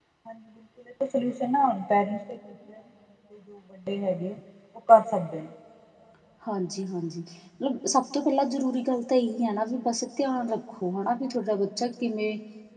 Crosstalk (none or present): none